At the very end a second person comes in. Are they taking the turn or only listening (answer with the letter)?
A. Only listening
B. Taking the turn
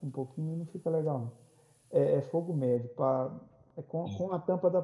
A